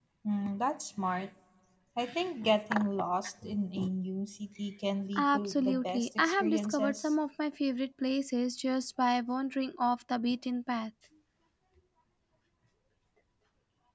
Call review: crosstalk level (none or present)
present